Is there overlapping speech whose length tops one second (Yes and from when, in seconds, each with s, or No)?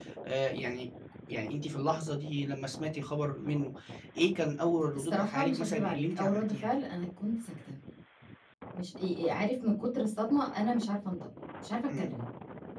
Yes, from 5.0 s